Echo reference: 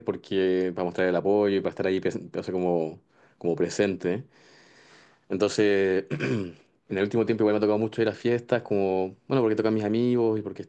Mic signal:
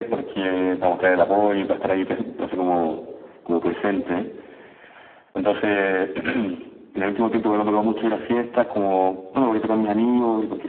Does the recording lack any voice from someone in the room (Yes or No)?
Yes